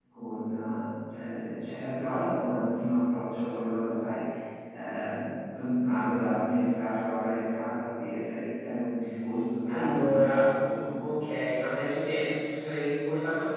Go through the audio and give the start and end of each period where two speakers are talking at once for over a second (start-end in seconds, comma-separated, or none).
9.7-10.9